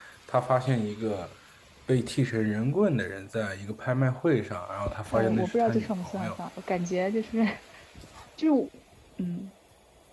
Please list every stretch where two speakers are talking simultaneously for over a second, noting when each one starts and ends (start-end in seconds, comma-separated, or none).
5.1-6.3